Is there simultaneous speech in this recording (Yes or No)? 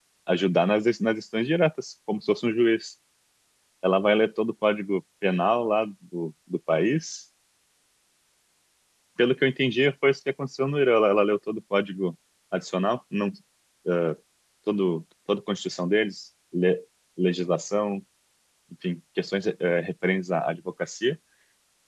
No